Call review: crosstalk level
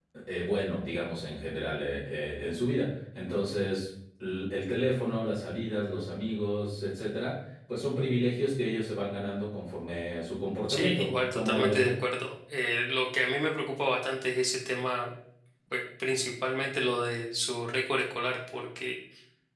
present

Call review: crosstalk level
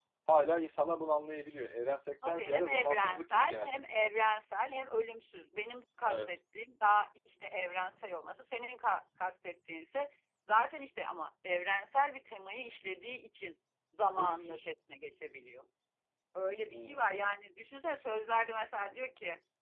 present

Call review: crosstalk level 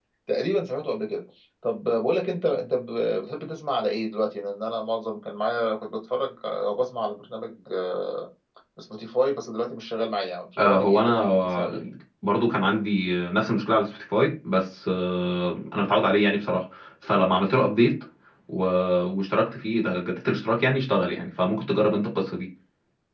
present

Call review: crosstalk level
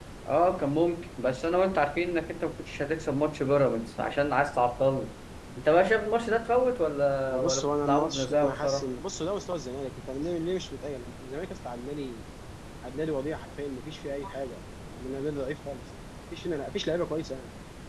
present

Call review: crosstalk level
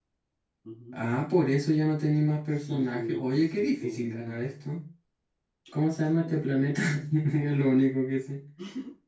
present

